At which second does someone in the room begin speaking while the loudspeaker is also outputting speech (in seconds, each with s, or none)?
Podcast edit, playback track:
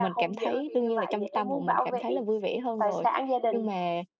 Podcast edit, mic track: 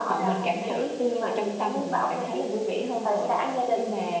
none